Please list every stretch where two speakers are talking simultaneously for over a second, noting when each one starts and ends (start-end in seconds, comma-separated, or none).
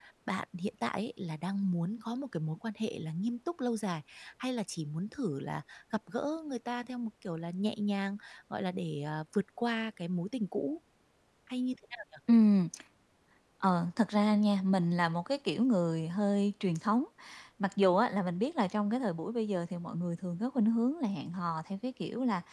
none